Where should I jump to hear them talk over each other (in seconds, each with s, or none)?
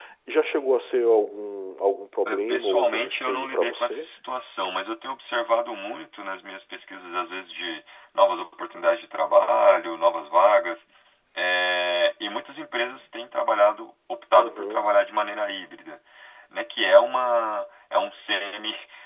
2.2 s